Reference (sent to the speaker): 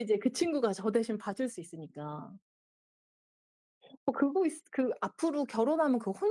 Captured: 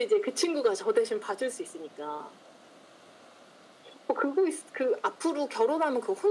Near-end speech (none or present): none